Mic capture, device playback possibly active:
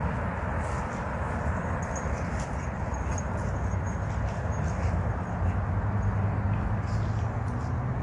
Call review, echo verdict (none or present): none